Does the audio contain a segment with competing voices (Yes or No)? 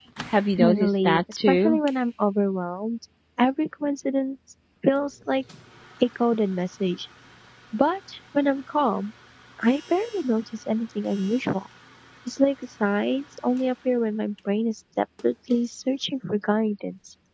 Yes